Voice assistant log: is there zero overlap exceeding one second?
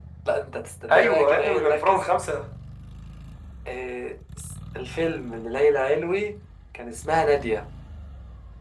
No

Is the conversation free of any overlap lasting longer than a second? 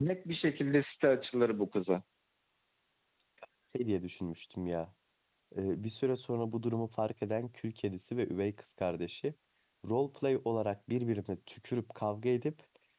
Yes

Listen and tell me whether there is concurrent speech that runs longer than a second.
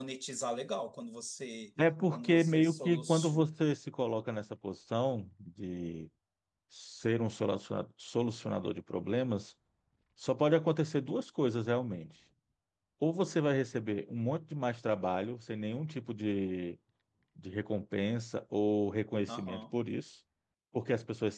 Yes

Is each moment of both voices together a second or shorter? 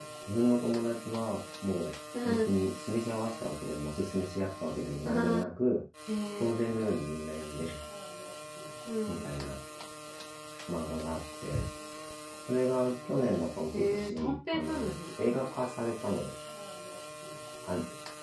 No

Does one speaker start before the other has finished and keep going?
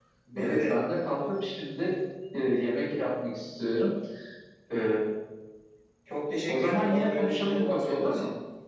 Yes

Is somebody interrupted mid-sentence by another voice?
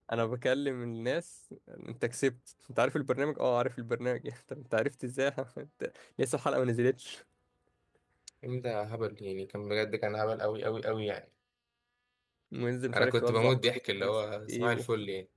Yes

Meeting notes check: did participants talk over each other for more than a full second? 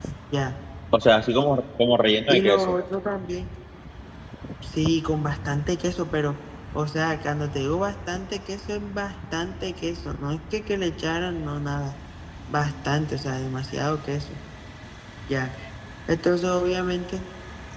No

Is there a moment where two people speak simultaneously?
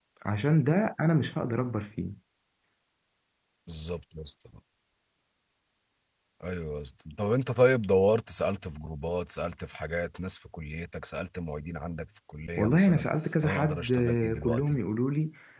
Yes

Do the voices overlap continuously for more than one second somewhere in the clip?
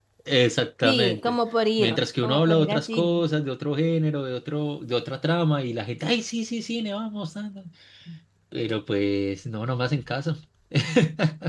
Yes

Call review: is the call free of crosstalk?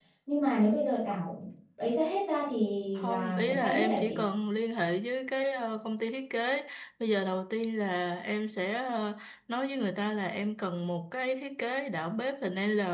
No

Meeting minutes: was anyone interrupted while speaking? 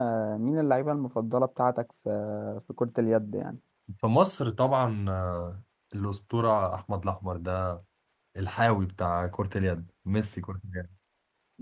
No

